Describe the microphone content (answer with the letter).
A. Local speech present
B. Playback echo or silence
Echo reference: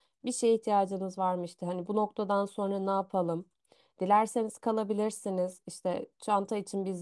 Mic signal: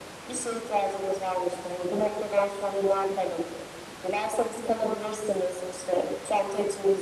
B